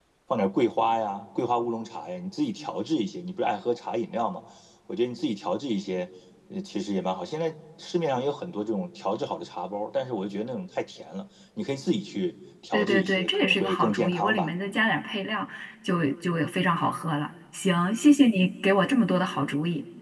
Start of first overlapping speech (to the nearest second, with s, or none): 13 s